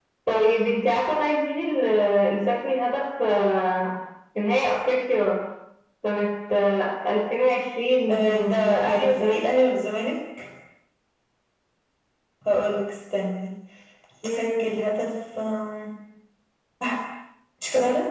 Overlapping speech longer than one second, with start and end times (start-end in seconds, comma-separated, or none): 8.1-9.4